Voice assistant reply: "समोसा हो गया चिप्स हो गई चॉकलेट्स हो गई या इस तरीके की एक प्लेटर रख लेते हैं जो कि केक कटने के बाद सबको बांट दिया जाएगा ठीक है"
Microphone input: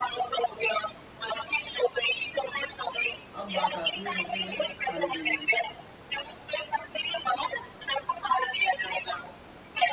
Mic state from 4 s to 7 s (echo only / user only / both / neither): both